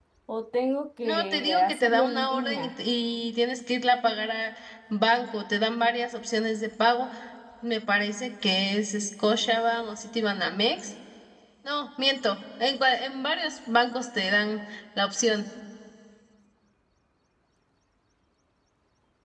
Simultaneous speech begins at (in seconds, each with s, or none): 1.0 s